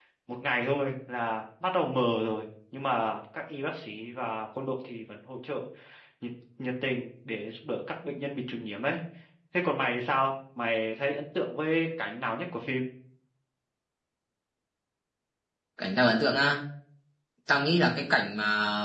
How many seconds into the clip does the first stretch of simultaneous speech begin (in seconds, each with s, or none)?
none